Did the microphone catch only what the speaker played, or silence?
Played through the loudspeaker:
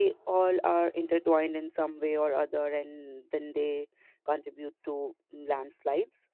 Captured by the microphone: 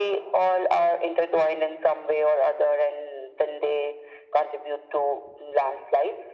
Yes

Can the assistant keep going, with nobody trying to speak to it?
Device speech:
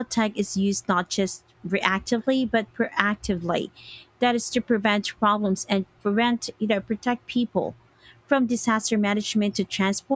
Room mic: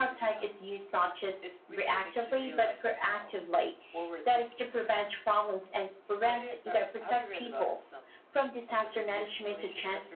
No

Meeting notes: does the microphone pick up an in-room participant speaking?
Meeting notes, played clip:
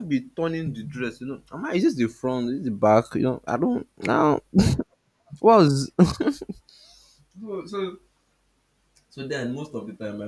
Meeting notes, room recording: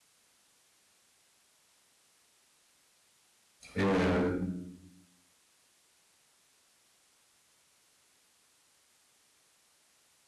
Yes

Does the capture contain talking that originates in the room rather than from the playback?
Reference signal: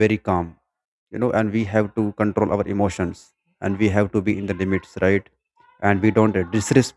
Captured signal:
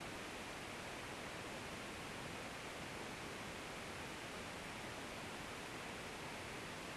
No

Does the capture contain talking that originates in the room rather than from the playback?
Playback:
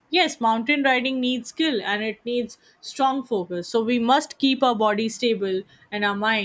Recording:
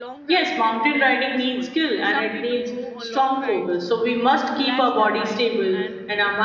Yes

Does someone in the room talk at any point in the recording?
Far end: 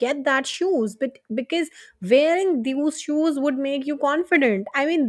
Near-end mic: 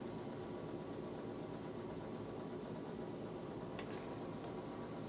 No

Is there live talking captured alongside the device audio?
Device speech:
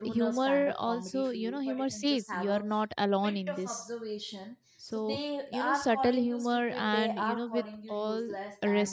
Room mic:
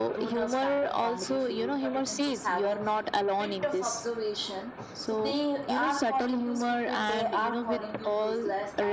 No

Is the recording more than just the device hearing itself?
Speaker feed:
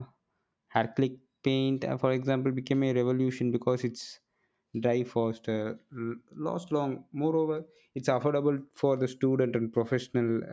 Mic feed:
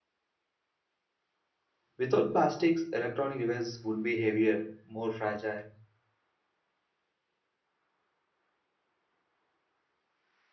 Yes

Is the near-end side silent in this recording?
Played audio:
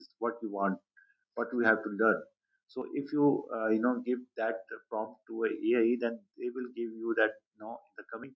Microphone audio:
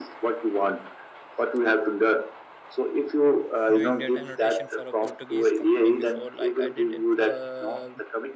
No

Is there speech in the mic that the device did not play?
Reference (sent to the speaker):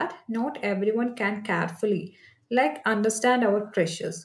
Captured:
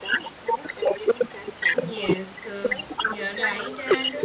Yes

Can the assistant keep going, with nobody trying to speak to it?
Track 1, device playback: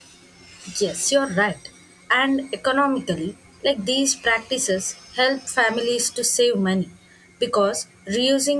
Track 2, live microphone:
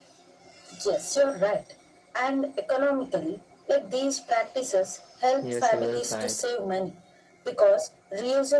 No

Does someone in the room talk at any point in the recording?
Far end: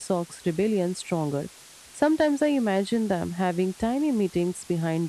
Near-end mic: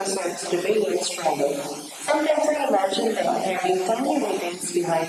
No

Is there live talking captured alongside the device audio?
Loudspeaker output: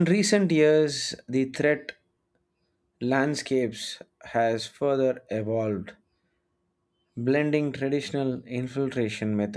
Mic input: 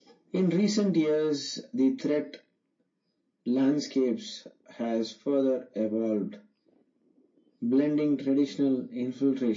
No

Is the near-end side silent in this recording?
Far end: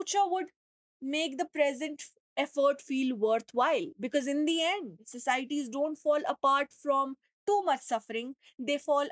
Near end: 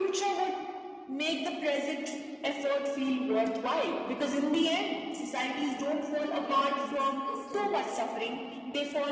No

